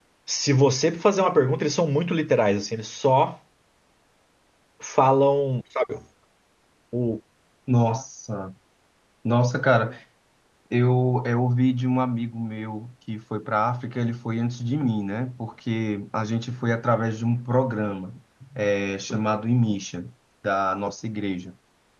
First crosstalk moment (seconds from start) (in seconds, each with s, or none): none